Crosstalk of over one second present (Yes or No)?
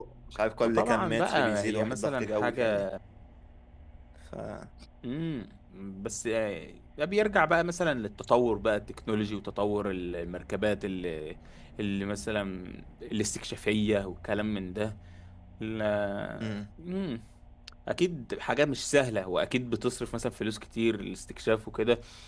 Yes